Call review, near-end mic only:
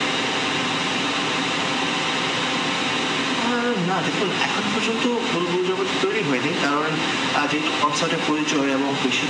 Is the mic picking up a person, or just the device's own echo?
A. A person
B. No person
B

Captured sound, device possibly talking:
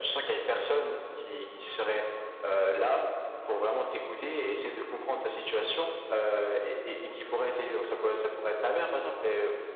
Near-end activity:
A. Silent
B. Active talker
A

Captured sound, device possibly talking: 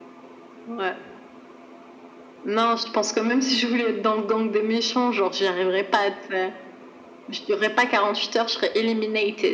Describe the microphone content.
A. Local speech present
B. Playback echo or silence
B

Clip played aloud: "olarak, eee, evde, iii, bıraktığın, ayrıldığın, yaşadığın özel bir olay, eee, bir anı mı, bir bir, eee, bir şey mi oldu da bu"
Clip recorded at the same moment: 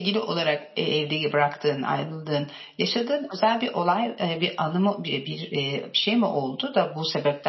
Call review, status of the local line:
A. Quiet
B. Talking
A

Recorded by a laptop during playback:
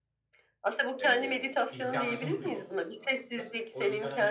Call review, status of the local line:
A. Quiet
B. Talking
B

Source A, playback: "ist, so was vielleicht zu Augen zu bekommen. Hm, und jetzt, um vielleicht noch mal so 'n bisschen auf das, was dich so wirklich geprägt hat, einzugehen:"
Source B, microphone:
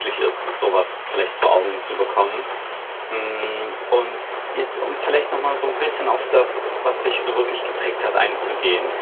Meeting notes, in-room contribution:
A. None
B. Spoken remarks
A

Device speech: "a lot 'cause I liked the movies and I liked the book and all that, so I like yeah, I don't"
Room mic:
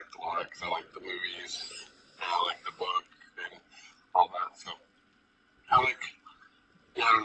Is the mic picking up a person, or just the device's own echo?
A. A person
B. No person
B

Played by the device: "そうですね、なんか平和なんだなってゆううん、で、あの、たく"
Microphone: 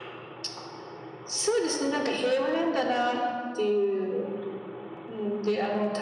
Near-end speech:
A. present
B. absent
B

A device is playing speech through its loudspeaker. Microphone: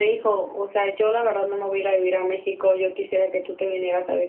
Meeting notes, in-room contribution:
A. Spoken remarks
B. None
B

